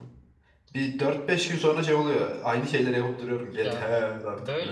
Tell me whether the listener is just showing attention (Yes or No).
No